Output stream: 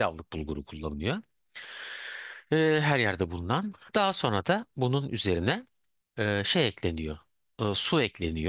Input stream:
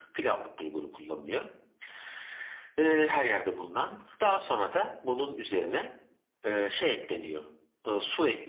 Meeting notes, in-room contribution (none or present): none